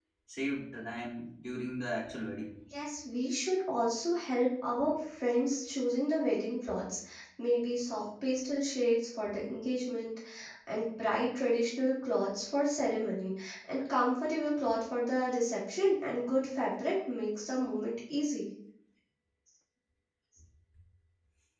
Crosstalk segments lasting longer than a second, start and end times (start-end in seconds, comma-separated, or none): none